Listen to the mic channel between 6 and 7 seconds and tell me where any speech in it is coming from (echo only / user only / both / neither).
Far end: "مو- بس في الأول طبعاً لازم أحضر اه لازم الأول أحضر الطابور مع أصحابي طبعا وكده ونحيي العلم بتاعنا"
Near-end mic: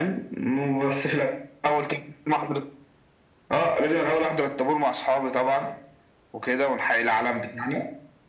echo only